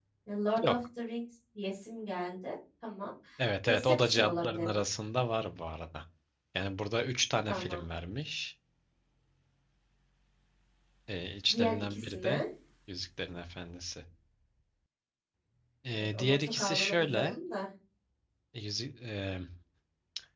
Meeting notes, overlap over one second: present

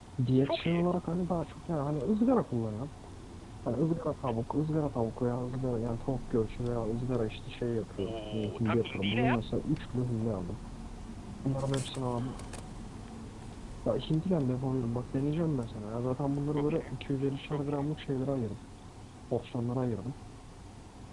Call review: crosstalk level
present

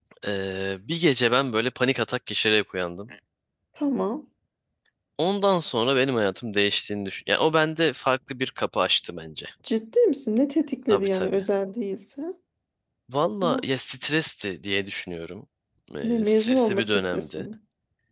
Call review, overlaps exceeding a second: present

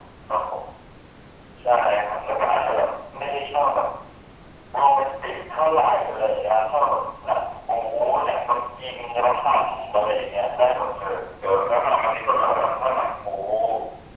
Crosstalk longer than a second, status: none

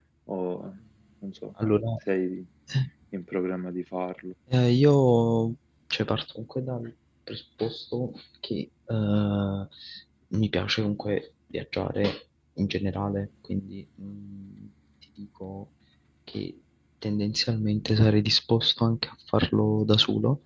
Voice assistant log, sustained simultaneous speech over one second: none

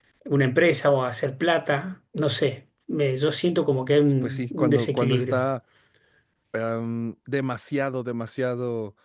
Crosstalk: present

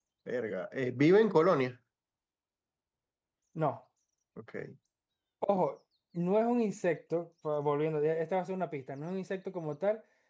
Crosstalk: none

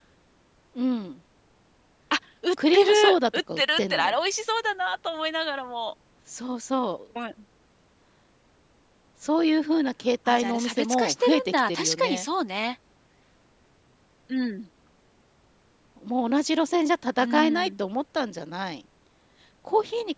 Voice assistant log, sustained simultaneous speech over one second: present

